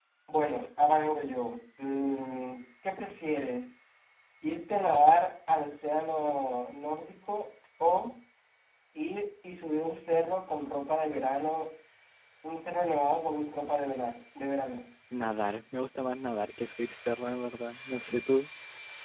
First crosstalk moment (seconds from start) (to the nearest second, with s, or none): none